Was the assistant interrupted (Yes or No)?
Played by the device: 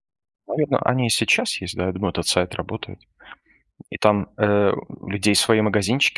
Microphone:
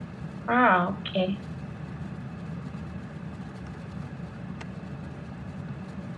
Yes